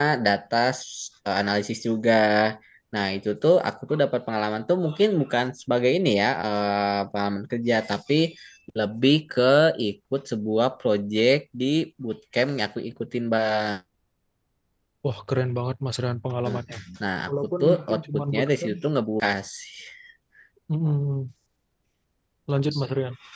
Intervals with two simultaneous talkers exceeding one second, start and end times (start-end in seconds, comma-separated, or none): 17.3-18.8